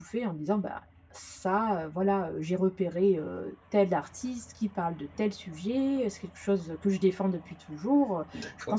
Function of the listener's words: listening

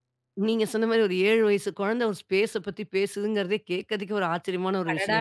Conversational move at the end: taking over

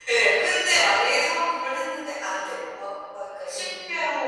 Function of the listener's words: listening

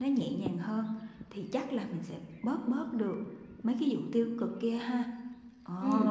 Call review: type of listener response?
taking over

